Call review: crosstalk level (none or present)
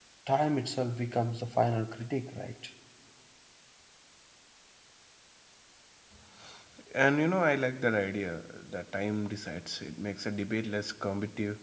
none